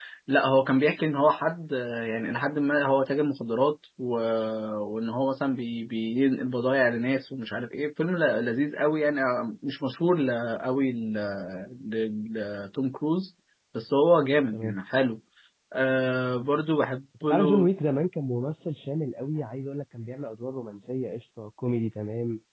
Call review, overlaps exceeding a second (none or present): none